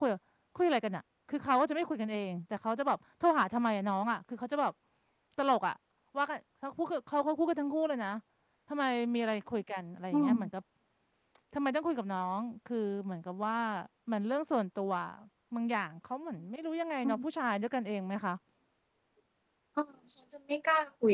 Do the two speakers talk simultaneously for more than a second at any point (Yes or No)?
No